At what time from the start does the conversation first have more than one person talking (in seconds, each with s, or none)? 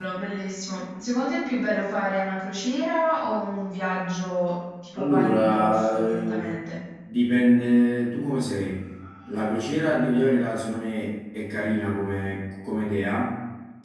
5.0 s